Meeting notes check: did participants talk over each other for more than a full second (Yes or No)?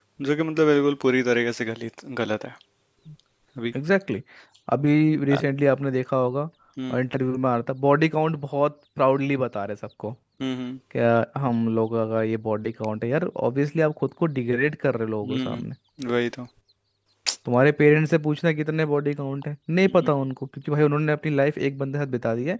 No